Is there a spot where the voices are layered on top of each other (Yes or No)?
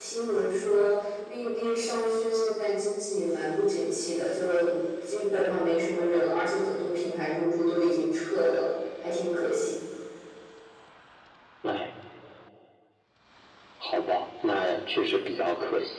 No